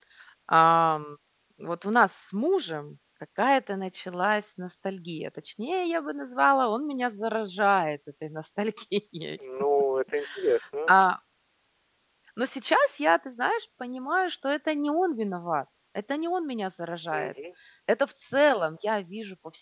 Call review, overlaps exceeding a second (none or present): none